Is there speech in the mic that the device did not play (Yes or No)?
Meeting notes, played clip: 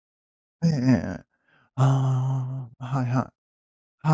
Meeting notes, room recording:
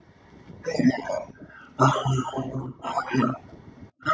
No